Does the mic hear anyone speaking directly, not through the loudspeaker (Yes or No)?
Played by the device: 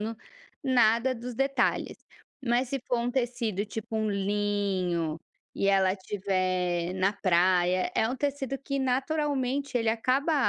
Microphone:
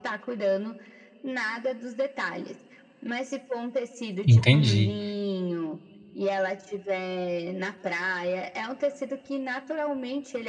Yes